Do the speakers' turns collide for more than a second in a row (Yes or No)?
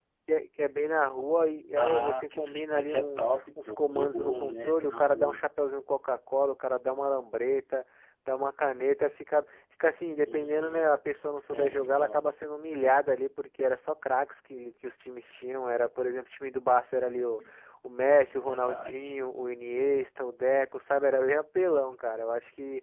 Yes